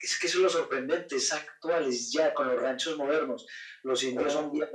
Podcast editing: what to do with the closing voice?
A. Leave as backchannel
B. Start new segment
A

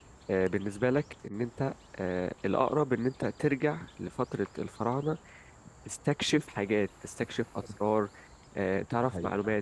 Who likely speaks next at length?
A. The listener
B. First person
A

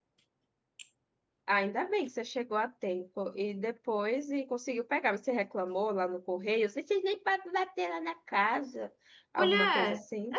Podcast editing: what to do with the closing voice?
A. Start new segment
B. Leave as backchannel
A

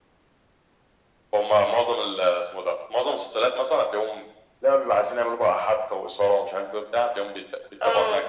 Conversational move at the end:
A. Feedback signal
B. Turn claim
A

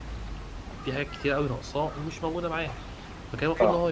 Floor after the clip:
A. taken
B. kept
B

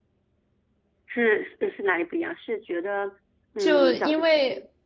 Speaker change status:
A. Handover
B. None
A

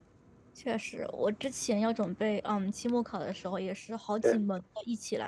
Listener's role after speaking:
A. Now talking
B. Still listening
B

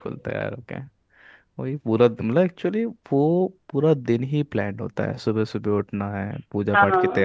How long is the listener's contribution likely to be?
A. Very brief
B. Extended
A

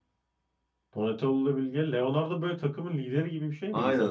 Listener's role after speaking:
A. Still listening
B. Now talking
B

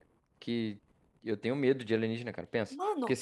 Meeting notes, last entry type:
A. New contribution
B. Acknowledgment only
B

